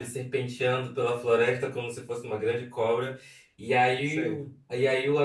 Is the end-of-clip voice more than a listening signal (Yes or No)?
No